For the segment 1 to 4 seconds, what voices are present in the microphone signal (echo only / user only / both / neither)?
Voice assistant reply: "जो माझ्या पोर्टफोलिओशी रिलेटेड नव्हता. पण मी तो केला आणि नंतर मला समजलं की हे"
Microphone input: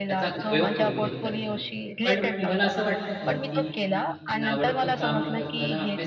both